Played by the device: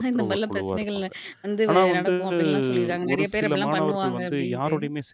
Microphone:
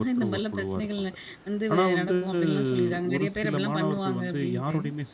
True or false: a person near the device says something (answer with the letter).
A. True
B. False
B